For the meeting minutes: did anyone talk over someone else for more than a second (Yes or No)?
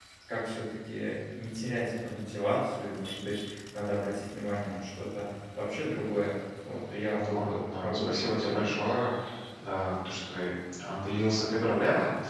Yes